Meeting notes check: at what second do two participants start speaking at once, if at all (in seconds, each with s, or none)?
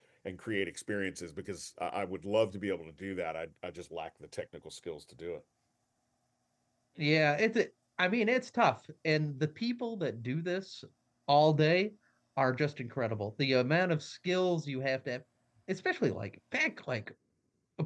none